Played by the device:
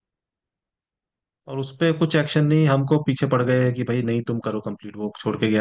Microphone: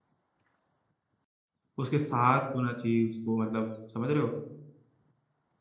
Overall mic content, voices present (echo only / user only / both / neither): user only